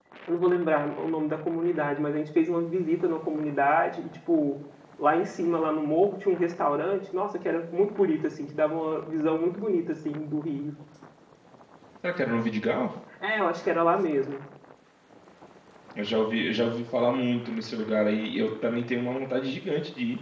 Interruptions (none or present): none